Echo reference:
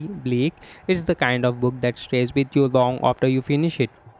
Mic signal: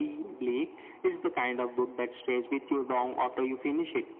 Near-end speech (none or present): none